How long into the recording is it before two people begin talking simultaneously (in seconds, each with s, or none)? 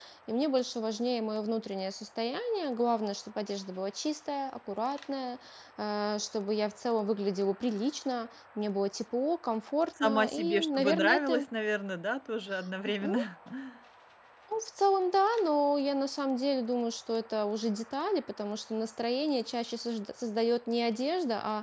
10.0 s